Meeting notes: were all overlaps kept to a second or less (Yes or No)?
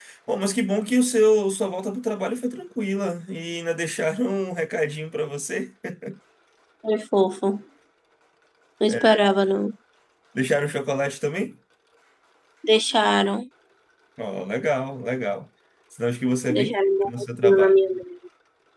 No